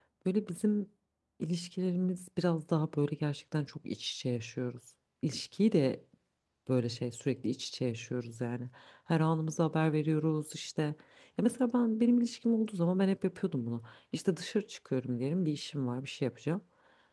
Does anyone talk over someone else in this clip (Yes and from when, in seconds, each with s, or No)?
No